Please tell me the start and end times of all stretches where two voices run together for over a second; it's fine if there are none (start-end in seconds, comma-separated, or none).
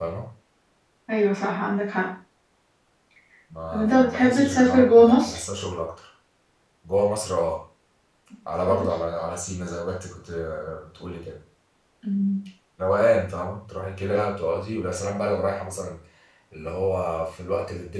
3.7-5.4